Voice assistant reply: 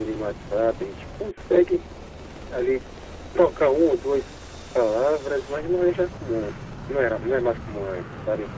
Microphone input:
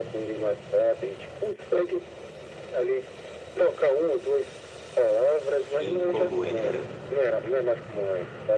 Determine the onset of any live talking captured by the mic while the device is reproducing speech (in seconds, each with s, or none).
5.8 s